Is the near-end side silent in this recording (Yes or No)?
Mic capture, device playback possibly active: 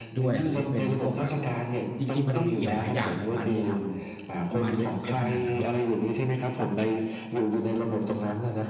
No